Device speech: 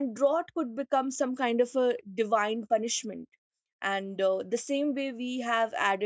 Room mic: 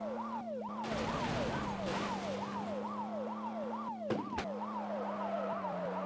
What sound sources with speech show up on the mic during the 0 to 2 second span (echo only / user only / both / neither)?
neither